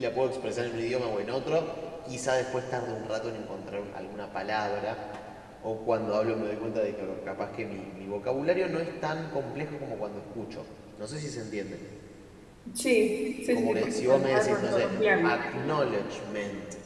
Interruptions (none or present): present